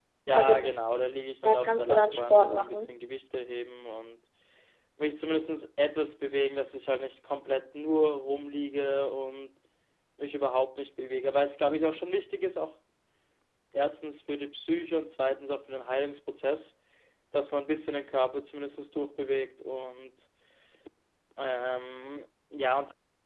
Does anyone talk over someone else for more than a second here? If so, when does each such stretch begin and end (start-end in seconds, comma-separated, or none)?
1.4-3.0